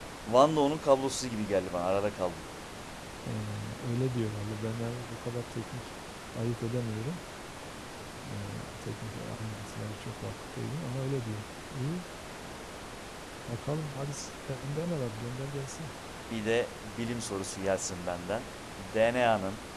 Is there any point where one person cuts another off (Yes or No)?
No